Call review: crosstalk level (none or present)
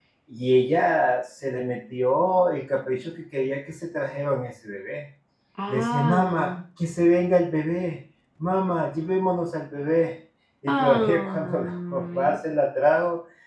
present